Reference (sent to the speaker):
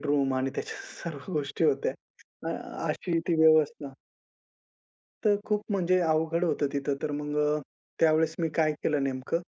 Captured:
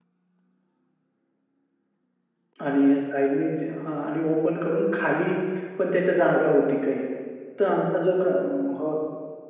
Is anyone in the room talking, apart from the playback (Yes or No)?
Yes